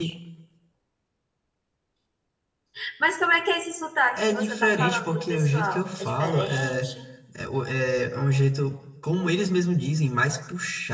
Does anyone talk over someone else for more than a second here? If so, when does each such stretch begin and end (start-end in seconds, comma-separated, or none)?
4.2-6.8